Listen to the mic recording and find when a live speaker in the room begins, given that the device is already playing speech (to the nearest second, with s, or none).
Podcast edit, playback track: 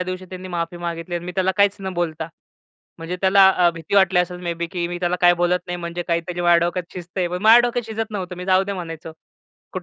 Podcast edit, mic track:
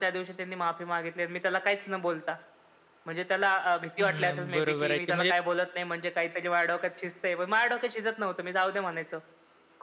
4 s